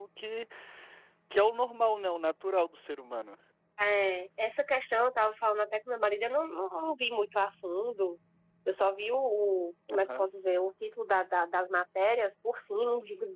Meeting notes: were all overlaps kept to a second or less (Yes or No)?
Yes